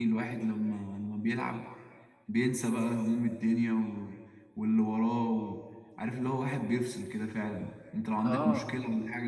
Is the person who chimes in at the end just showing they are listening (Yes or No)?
Yes